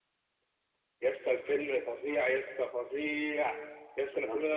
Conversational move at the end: listening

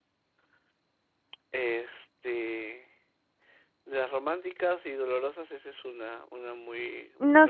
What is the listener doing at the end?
taking over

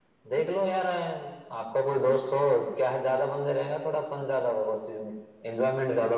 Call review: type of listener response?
taking over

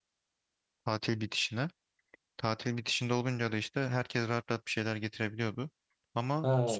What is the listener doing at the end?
taking over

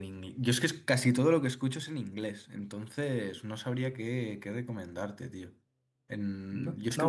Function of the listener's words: taking over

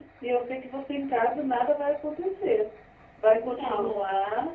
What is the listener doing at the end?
listening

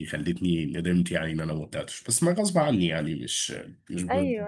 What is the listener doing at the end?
taking over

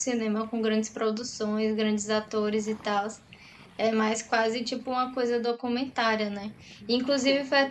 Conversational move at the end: listening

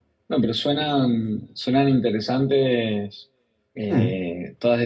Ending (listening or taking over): listening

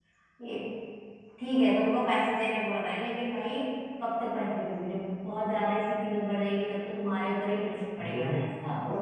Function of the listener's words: taking over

